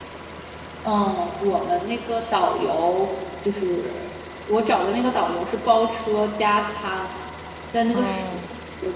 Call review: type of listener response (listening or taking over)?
listening